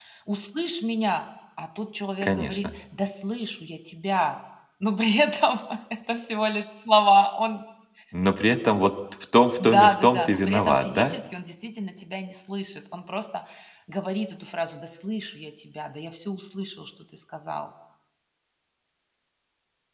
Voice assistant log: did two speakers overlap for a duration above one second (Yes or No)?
Yes